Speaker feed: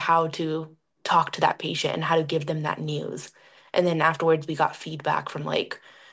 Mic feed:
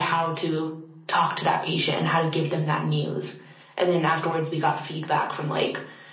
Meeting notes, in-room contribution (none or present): none